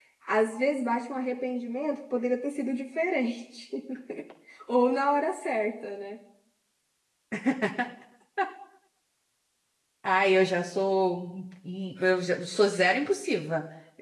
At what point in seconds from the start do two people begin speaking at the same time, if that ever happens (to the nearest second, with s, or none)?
none